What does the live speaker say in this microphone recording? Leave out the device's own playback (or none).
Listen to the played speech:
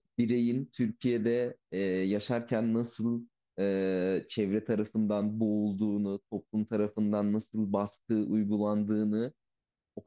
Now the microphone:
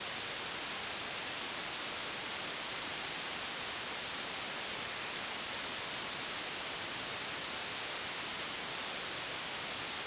none